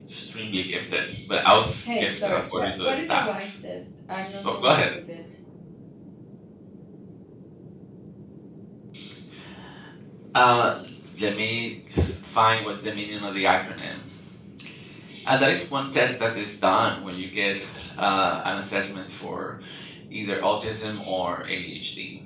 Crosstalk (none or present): present